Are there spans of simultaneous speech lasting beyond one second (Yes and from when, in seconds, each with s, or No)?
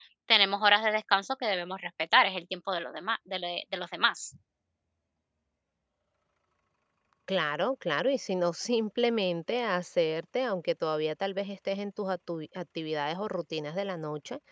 No